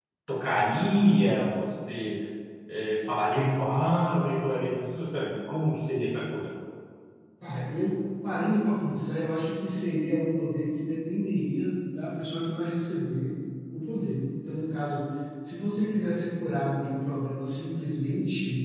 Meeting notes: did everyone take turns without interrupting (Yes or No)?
Yes